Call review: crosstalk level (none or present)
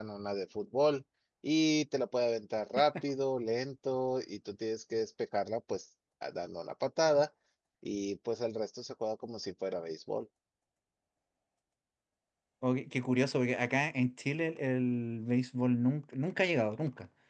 none